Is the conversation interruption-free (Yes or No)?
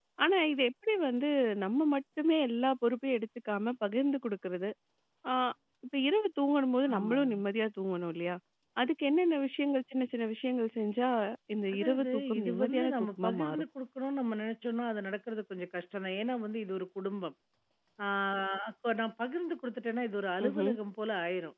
No